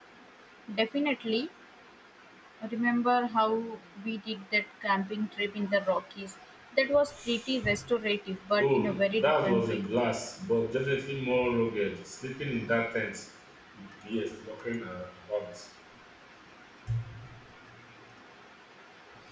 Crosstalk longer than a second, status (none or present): present